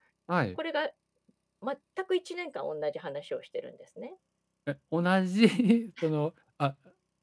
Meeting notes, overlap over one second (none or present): none